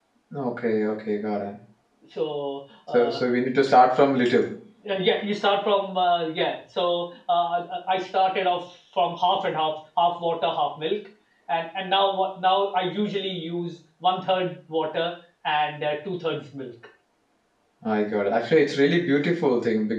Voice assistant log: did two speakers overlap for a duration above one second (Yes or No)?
No